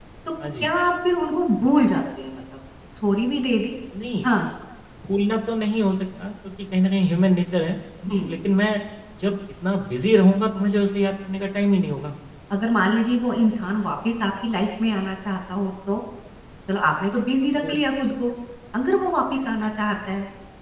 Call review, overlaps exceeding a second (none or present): none